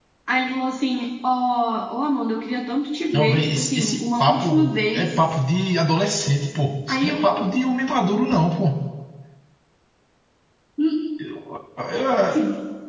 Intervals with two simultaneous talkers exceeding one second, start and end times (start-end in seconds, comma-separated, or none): 3.1-5.2